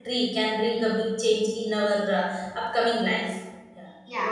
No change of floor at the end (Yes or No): No